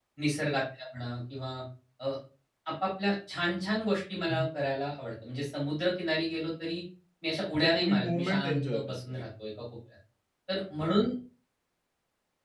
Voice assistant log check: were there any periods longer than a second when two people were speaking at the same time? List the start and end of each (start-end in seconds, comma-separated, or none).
7.5-9.0